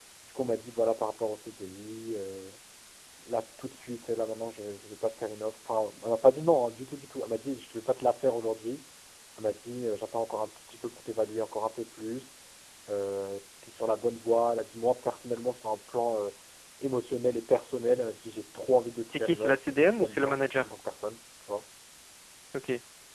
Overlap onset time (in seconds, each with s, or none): 19.1 s